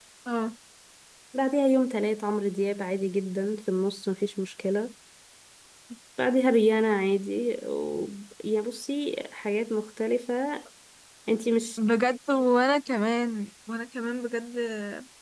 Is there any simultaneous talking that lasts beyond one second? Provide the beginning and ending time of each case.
none

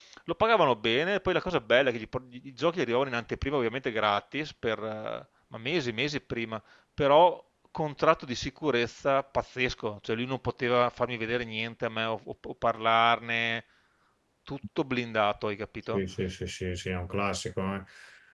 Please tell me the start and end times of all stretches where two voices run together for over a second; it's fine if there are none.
none

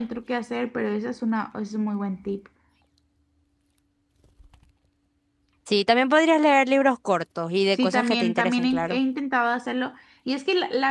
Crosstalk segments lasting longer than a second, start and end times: 7.7-9.0

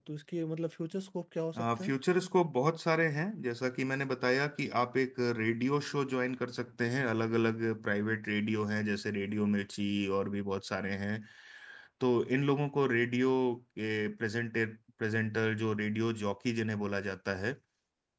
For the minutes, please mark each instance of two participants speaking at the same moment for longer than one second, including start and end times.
none

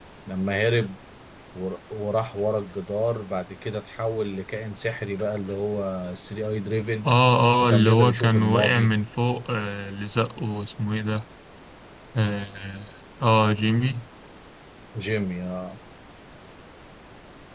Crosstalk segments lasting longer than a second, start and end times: 7.7-8.9

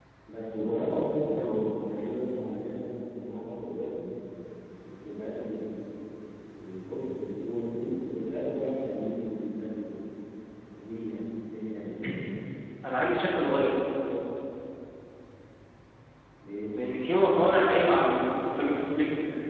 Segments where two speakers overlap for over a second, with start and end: none

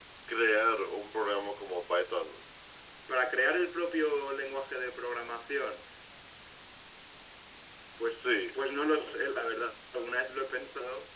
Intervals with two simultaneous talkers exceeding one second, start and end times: none

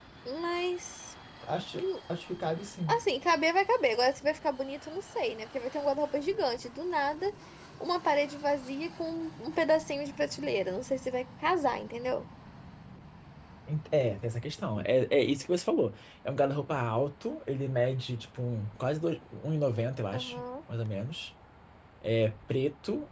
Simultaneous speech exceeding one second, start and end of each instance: none

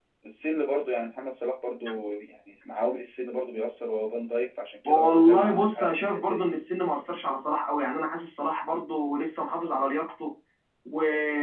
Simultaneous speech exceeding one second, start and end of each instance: 4.9-6.5

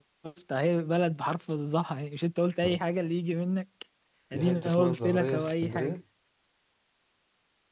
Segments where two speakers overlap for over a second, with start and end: 4.3-6.0

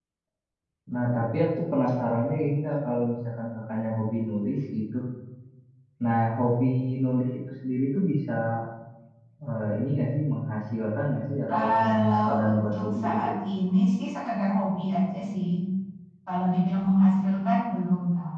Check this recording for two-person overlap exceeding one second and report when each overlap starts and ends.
11.6-13.3

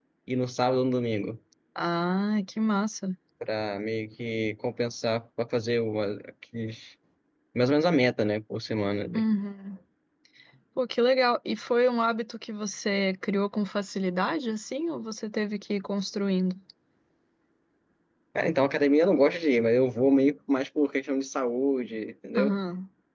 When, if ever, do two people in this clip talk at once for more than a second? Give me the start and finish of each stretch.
none

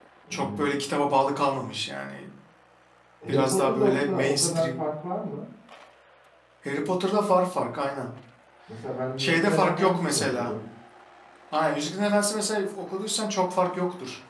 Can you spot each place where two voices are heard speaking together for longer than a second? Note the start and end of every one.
3.3-4.7, 9.2-10.5

